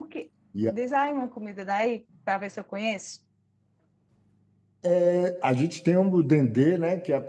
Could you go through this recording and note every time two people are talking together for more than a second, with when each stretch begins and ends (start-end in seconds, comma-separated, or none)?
none